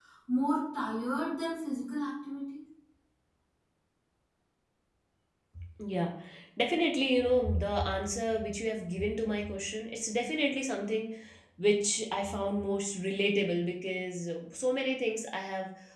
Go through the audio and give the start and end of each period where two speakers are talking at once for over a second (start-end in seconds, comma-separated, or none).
none